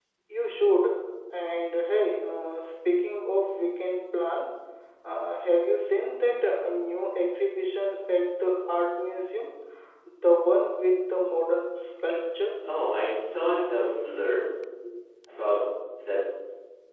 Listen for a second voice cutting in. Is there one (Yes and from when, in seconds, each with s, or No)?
No